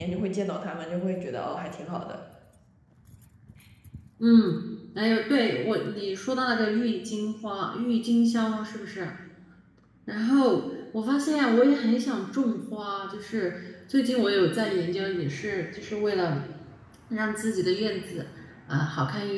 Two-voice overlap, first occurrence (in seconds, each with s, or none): none